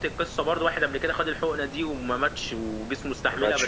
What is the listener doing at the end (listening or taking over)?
listening